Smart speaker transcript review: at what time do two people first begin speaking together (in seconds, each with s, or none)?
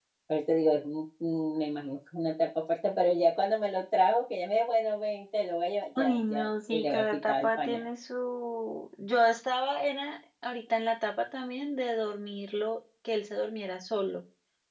6.0 s